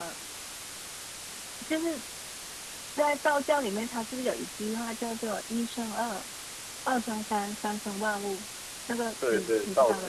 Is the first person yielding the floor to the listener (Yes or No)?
Yes